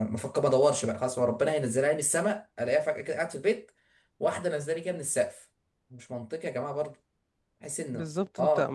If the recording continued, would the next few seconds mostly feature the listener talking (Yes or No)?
Yes